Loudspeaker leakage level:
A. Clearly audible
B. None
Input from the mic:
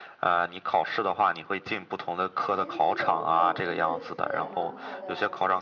A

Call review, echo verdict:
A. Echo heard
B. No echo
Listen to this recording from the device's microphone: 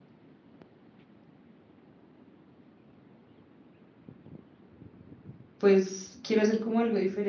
B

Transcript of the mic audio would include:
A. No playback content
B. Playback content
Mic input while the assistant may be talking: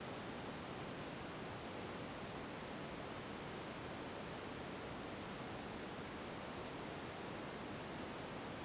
A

